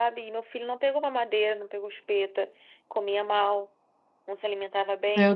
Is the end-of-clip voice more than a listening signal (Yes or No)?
No